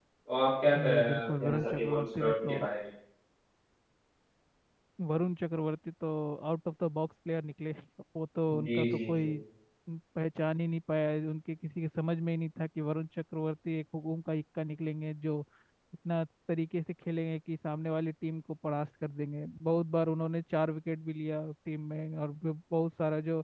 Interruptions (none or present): present